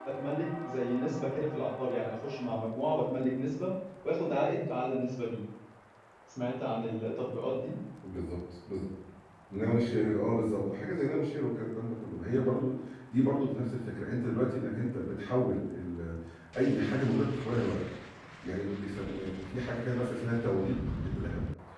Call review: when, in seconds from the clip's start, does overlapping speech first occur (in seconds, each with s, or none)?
none